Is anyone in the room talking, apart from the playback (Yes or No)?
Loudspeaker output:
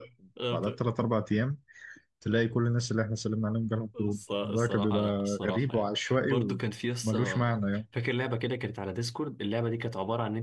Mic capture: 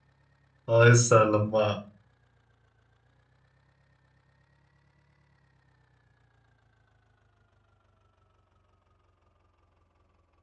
Yes